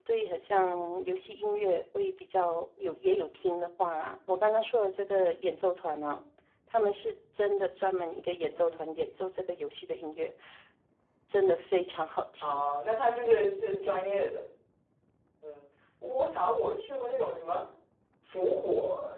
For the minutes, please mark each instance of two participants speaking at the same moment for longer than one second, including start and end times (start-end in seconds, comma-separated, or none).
none